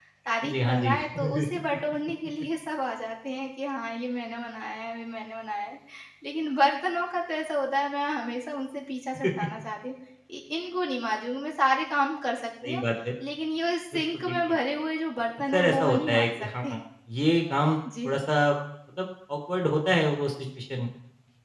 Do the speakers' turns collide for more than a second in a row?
Yes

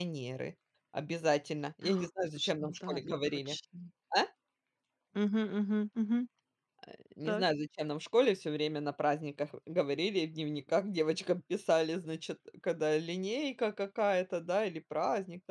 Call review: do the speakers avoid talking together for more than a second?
No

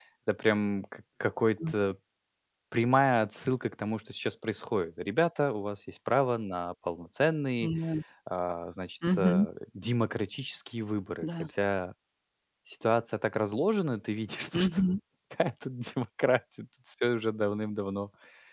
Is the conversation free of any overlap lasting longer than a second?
Yes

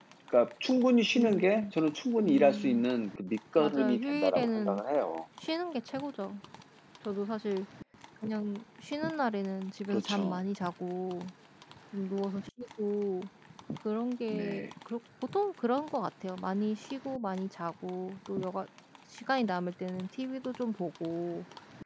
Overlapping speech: Yes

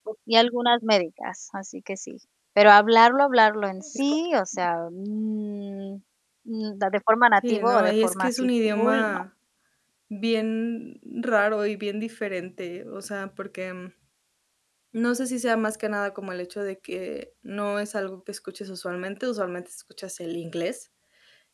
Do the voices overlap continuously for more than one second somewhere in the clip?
Yes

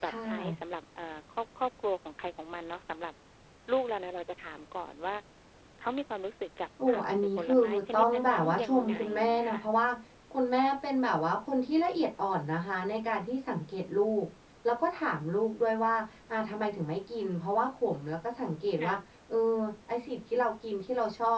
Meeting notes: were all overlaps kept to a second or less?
No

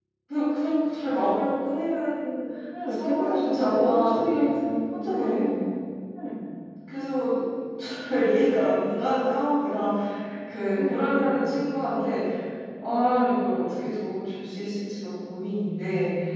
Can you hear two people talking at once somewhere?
Yes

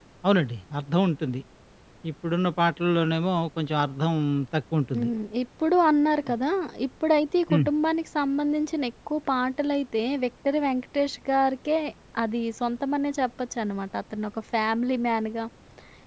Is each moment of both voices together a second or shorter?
Yes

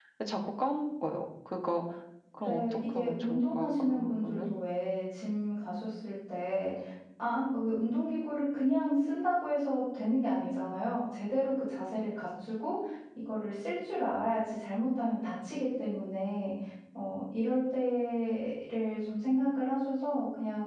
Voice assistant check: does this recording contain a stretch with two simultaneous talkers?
Yes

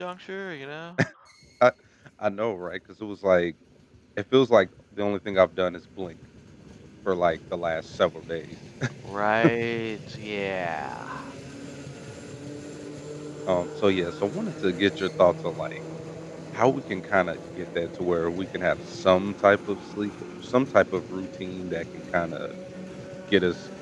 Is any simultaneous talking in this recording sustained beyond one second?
No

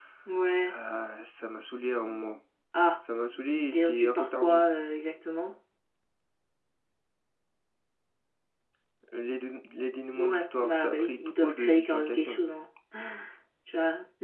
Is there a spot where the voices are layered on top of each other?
Yes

